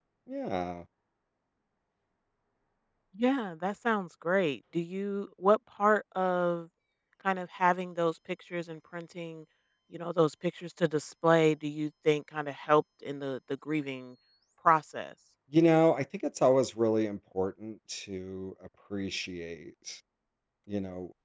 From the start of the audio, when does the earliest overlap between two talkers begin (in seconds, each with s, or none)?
none